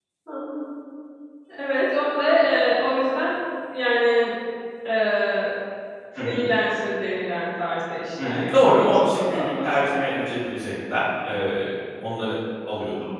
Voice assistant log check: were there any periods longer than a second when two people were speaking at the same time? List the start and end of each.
8.2-9.9

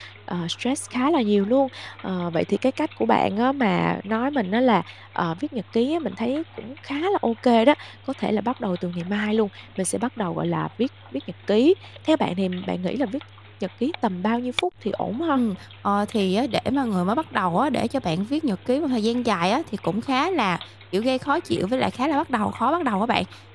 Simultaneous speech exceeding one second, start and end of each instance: none

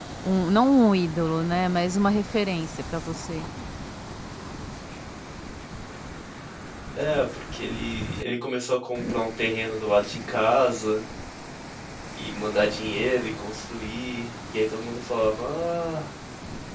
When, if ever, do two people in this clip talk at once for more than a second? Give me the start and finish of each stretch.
none

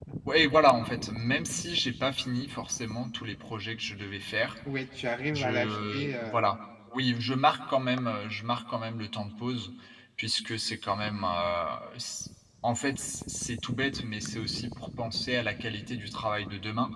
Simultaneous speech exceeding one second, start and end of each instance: 5.3-6.5

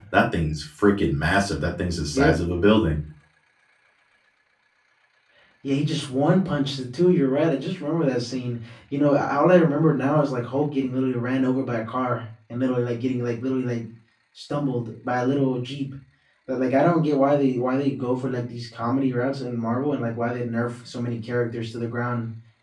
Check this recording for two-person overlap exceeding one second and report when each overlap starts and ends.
none

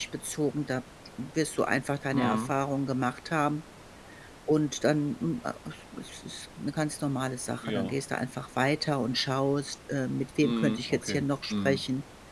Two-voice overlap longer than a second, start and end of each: 10.4-11.8

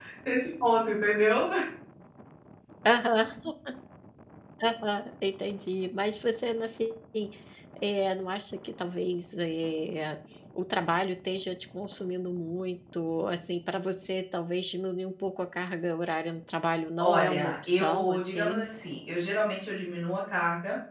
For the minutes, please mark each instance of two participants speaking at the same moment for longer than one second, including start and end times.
17.0-18.7

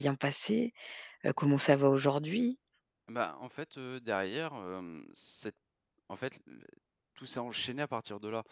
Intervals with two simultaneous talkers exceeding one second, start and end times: none

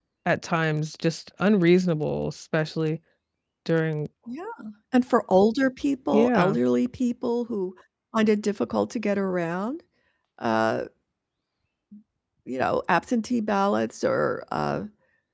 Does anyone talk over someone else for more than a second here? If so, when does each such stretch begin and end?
none

